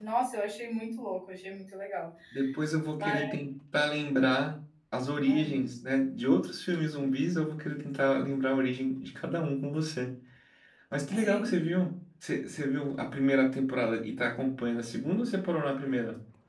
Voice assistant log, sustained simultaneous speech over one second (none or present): none